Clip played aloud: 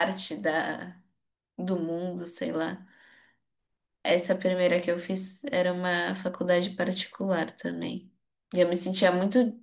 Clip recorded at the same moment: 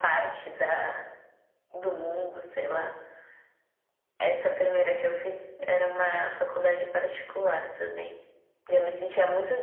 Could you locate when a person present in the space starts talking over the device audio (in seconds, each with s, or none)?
none